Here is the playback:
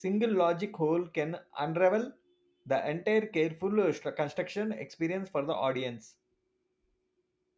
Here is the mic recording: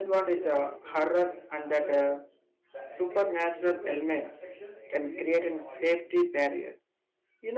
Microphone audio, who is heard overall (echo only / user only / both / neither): both